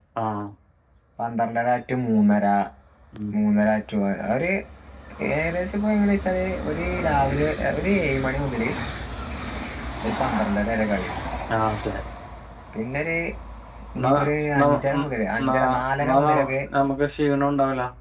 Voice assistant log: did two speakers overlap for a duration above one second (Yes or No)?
No